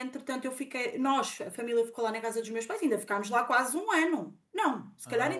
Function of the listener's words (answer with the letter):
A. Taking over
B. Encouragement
B